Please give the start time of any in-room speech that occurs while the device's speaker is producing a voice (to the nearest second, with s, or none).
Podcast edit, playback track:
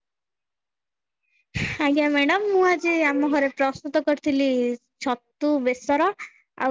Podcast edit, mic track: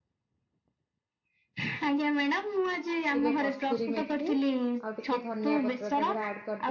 3 s